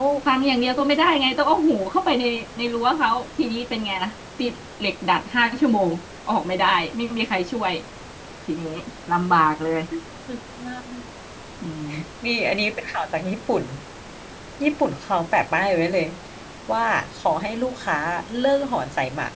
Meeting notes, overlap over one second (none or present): none